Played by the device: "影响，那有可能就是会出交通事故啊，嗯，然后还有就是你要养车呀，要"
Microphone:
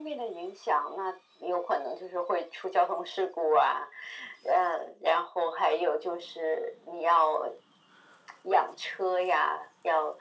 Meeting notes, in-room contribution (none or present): none